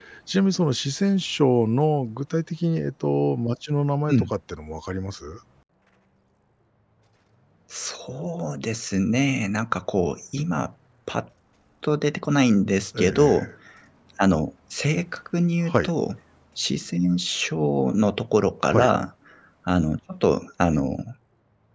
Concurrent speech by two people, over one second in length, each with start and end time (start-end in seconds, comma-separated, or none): none